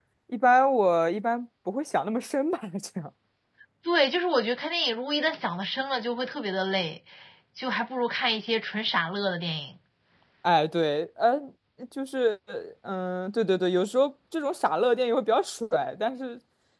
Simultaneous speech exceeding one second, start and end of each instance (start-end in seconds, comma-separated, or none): none